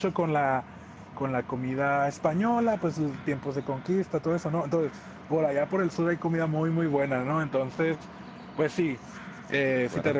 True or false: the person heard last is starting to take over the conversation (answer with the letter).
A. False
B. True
A